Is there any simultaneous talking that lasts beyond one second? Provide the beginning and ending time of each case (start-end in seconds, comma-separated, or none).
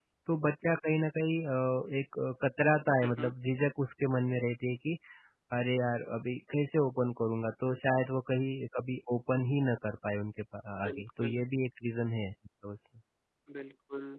none